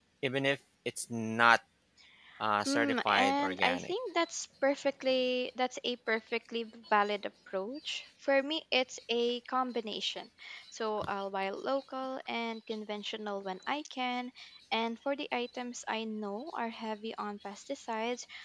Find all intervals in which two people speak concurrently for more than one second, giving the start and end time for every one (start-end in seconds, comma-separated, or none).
2.6-3.9